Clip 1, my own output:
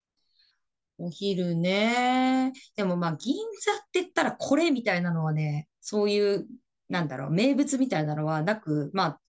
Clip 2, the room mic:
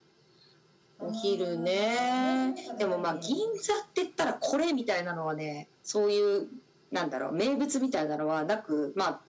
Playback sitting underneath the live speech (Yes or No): No